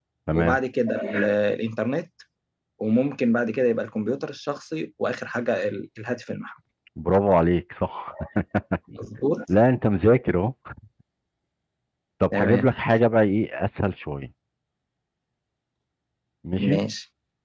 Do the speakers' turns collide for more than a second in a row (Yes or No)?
No